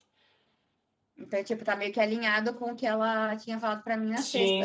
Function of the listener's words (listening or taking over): taking over